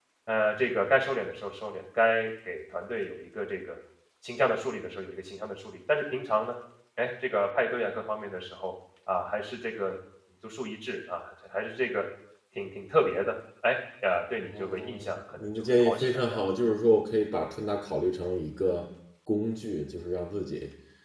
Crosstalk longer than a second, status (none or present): present